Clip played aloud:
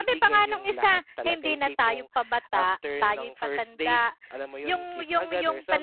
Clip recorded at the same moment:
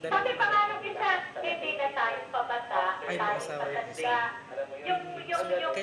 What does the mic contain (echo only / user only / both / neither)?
both